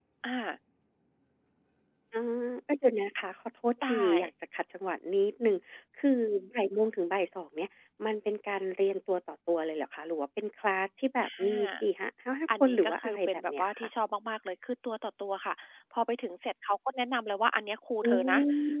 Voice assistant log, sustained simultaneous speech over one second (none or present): present